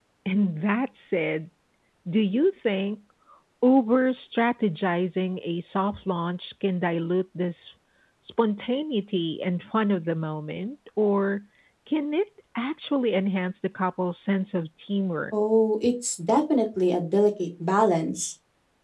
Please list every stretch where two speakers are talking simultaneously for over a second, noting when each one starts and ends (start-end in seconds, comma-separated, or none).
none